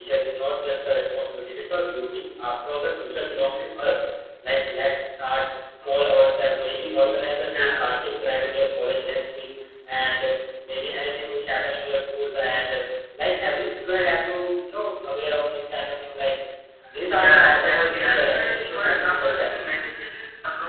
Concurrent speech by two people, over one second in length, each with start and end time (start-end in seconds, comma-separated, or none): 17.2-19.6